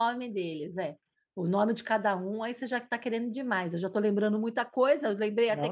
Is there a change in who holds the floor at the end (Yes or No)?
Yes